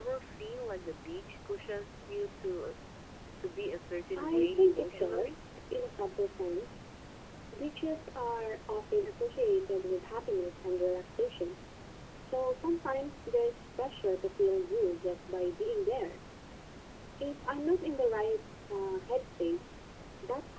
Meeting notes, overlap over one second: present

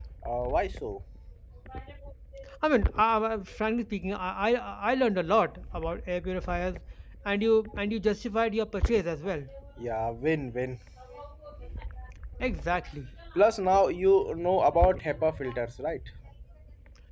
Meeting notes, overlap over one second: none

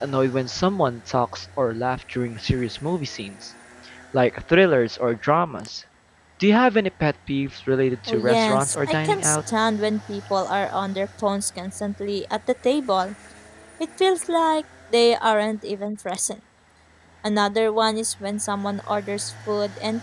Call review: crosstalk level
present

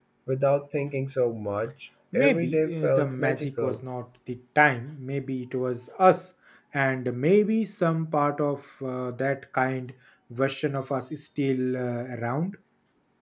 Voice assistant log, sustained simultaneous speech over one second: present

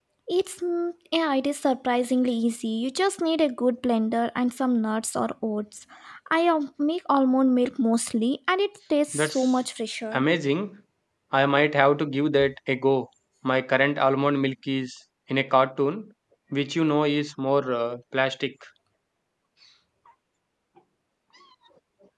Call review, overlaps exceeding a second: none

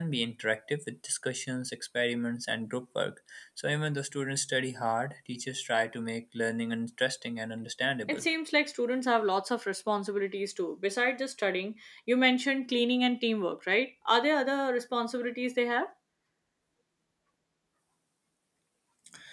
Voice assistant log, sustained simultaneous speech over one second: none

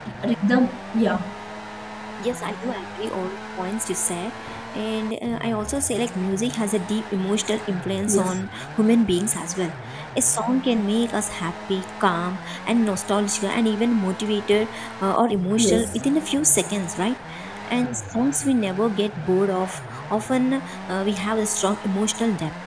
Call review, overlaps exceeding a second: none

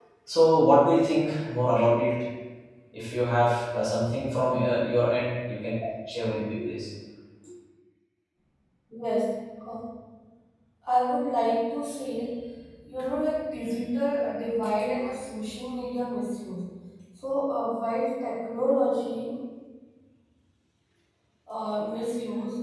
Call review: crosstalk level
none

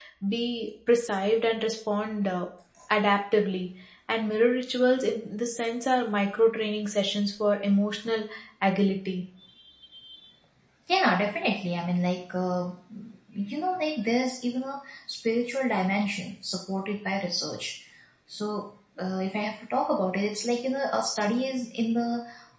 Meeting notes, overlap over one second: none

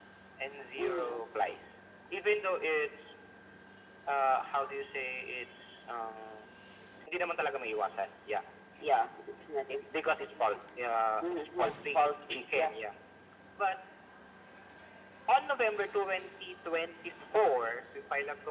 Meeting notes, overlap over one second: present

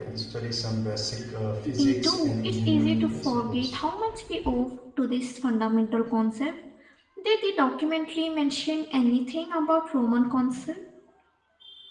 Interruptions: present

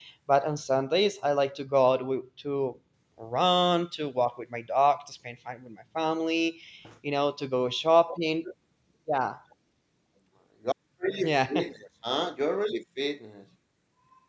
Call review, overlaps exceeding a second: none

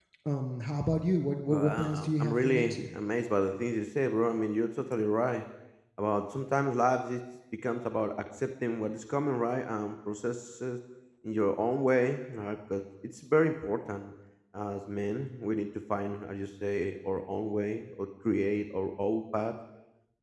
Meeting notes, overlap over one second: present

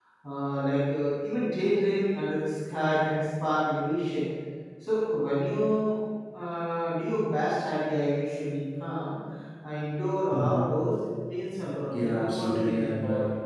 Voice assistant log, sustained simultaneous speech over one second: present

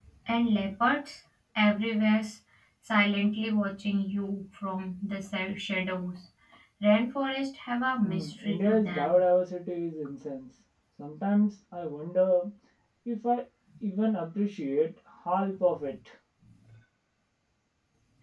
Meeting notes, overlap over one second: present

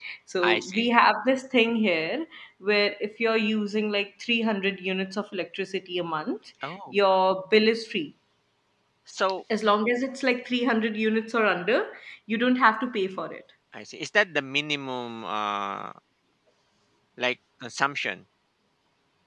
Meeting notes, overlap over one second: none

